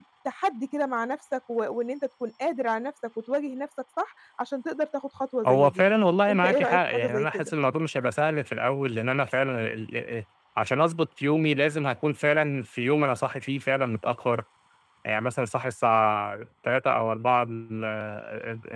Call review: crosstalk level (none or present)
present